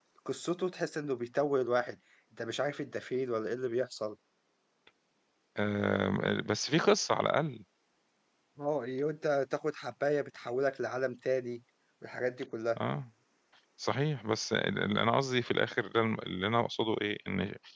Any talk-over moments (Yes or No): No